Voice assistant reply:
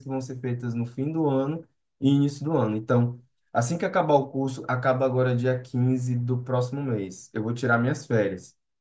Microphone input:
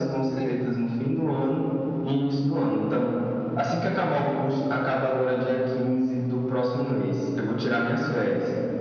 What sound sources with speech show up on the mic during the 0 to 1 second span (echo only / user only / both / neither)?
both